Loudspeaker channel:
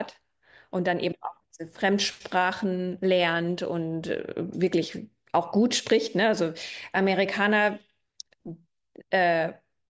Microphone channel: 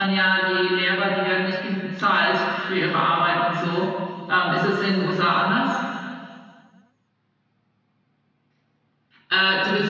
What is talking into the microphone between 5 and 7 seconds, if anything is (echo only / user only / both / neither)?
user only